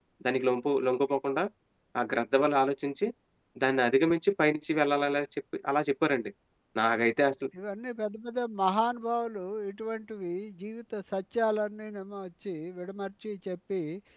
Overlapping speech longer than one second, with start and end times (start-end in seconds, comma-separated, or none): none